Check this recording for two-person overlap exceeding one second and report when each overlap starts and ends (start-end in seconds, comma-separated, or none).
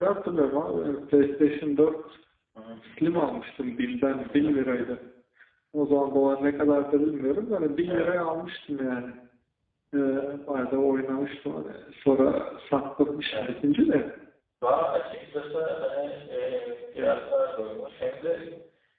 none